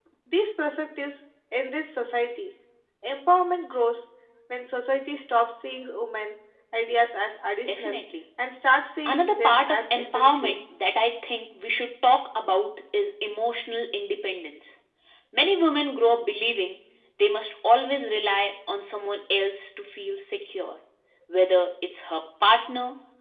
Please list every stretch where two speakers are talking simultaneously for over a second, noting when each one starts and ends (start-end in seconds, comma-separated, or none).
9.1-10.6